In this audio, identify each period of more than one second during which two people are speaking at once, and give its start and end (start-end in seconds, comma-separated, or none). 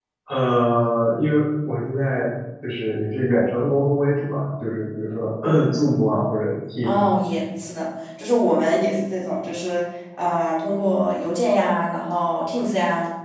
none